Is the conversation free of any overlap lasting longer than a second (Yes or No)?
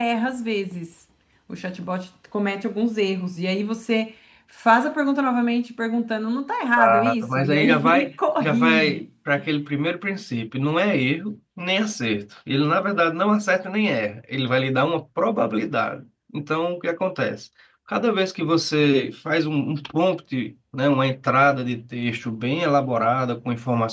No